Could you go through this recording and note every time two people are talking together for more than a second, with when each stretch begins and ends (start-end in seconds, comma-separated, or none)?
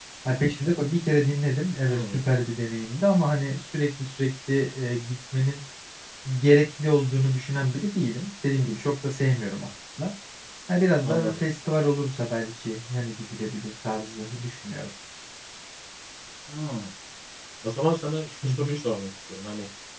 none